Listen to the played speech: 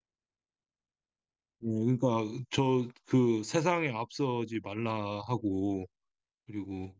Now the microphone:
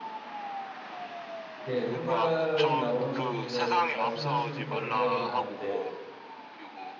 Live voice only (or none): 예, 그 말이 나오는 거 제가 말씀하시니까 생각이 나는데